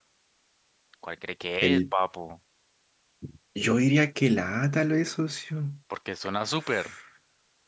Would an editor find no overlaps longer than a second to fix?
Yes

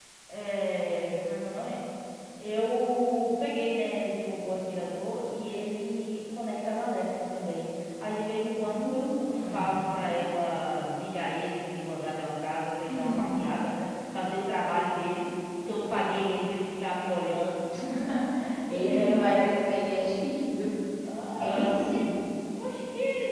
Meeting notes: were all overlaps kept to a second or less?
No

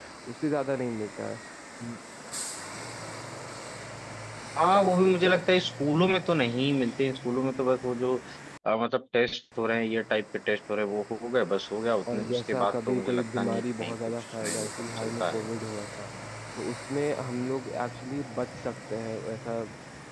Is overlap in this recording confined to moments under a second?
No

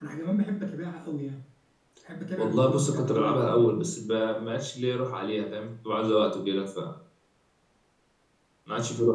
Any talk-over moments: Yes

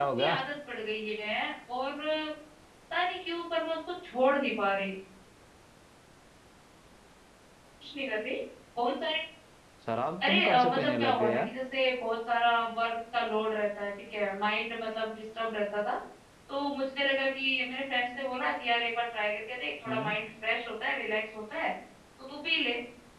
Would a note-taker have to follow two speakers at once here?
Yes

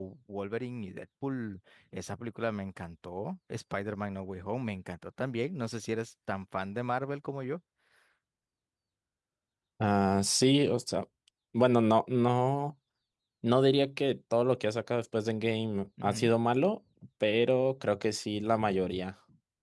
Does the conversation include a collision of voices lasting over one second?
No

